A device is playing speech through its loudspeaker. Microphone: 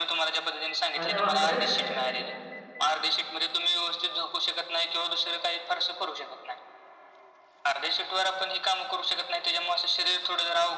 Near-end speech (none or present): present